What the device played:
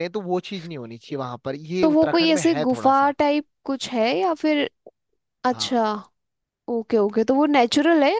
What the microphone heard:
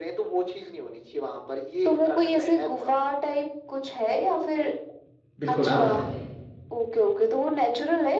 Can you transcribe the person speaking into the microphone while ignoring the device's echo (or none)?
बिल्कुल आप बताइए